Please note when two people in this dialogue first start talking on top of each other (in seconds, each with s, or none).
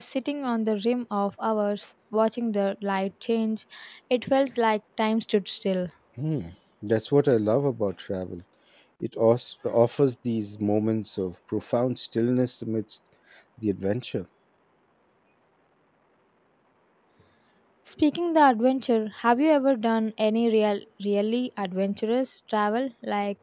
none